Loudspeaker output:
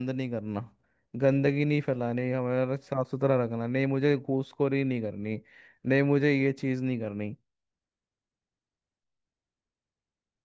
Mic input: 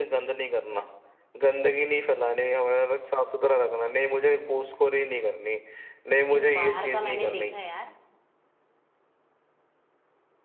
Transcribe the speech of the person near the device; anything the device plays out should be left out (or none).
लेकिन बाहर का मैंने देखा है यार